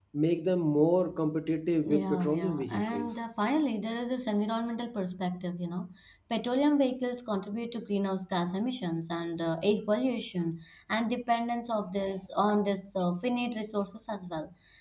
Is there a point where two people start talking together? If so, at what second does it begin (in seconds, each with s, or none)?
1.8 s